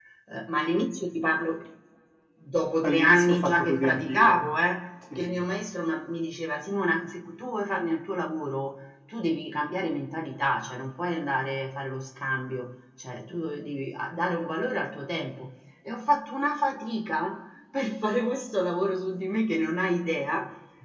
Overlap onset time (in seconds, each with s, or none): 2.8 s